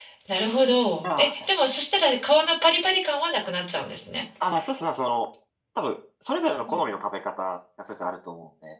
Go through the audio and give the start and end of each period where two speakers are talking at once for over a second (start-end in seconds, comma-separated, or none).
none